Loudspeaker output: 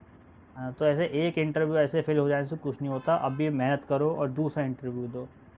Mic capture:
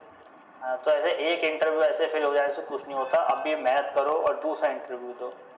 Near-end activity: none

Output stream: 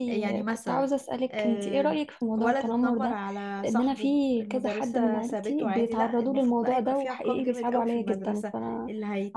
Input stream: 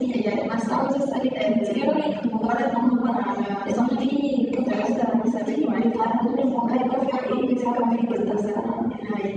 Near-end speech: none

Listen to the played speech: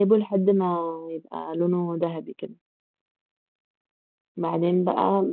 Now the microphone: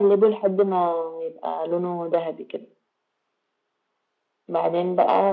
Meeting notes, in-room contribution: none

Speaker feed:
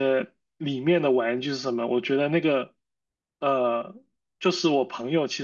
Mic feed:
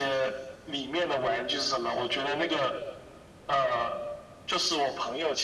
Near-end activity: none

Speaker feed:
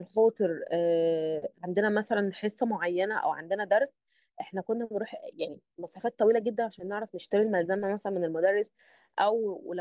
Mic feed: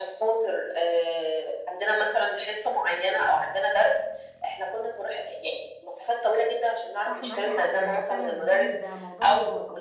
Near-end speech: present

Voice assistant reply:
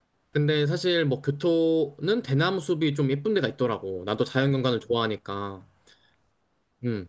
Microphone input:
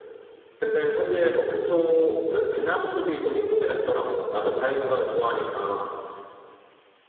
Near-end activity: none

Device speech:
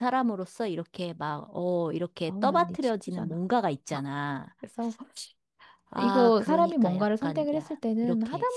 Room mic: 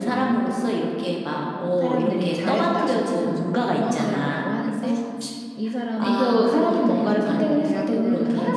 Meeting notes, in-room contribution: present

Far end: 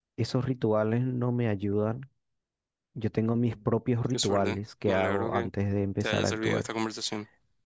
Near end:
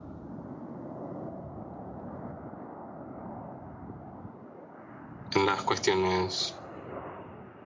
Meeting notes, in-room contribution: present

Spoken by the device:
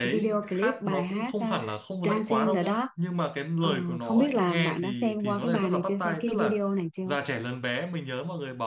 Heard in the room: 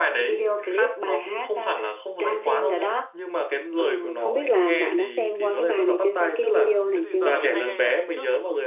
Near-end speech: present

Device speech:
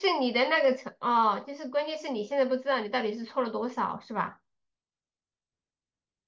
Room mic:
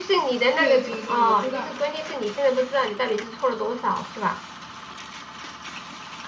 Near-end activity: present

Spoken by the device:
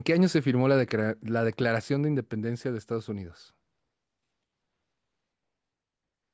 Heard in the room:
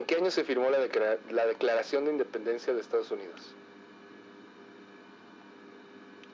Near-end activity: none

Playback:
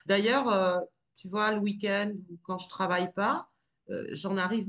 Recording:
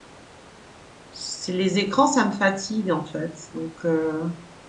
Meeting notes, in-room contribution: present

